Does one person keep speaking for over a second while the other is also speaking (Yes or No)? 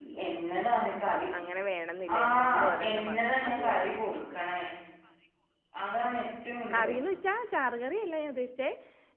Yes